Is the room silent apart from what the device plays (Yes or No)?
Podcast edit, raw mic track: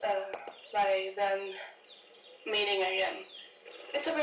Yes